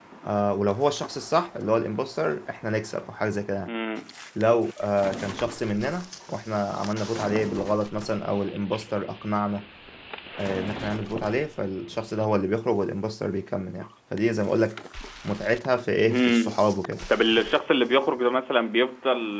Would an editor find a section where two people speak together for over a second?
No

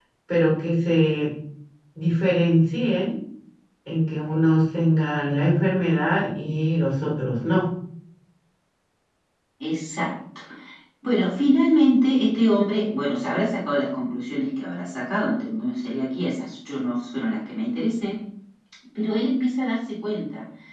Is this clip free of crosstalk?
Yes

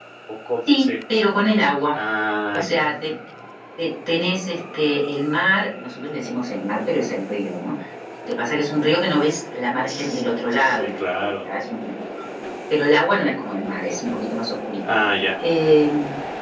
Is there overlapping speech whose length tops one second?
No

